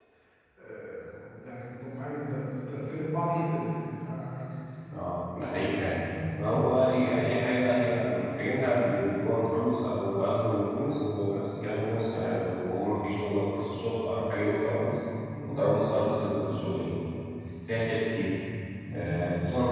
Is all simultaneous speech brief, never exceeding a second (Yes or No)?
Yes